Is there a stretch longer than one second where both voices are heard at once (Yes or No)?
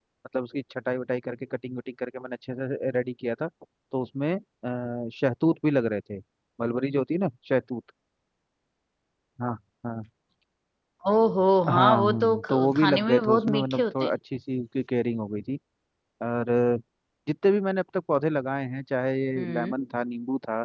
Yes